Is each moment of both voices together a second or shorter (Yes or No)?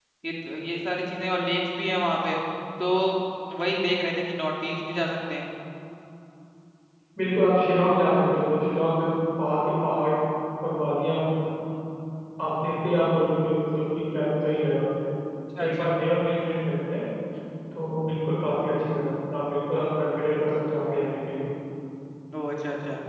Yes